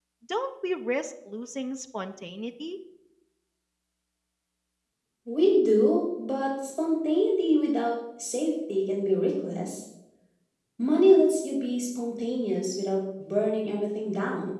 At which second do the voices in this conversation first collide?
none

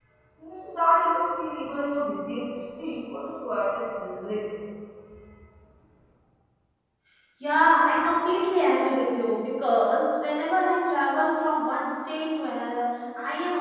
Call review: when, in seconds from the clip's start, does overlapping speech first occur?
none

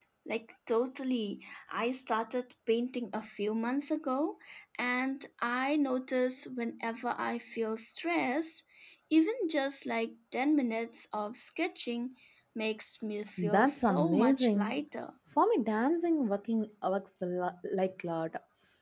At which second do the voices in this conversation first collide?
13.4 s

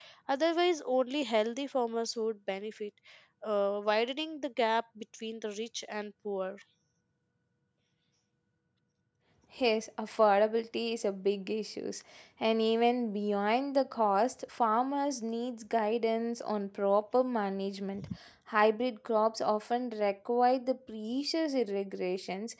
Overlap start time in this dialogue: none

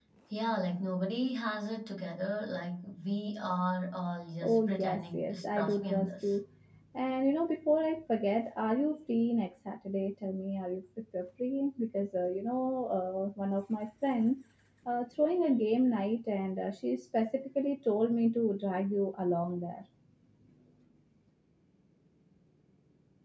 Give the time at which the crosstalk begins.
4.4 s

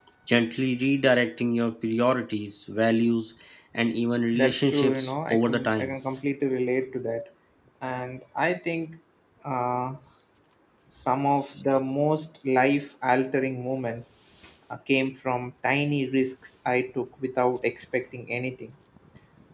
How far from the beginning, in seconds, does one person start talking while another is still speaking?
4.3 s

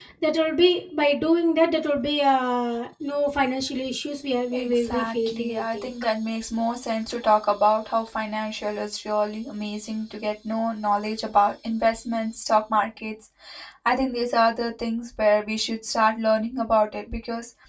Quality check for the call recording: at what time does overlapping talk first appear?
4.5 s

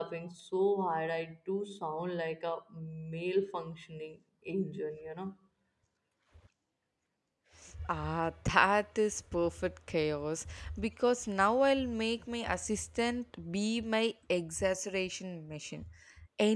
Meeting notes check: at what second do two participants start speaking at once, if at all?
none

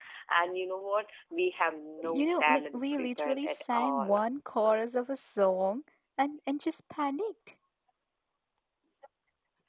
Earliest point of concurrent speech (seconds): 2.0 s

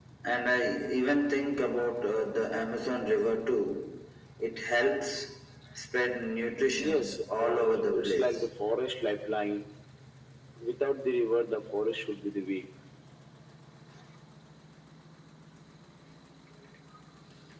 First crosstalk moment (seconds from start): 6.8 s

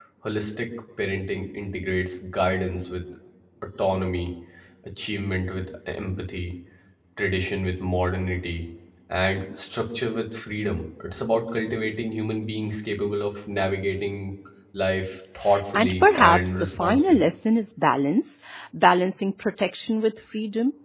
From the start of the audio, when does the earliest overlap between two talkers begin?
15.8 s

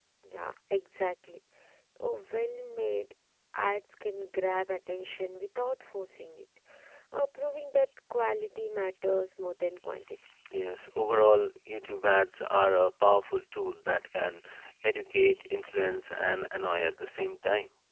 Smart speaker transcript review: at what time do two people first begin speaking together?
none

